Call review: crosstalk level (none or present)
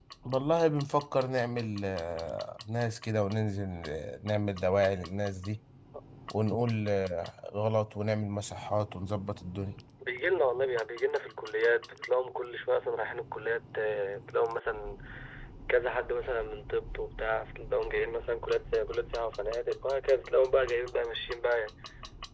none